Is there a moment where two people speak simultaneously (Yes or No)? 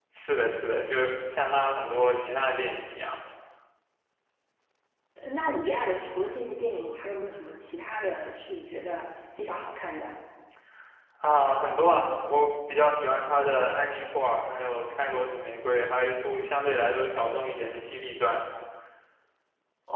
No